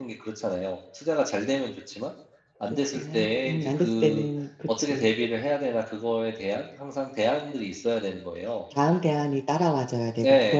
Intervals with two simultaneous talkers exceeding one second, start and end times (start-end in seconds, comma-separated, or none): 2.9-4.2